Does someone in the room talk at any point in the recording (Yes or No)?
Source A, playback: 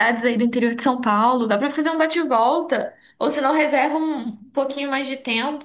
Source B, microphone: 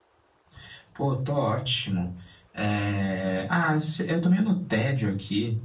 Yes